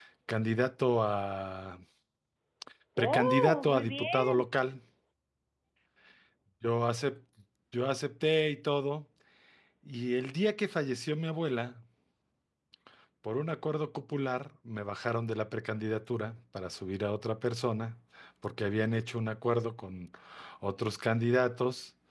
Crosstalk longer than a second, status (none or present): present